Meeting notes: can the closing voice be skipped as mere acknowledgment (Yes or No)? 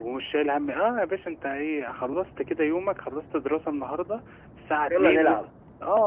Yes